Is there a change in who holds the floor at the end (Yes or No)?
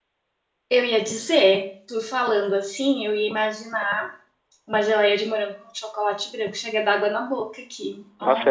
Yes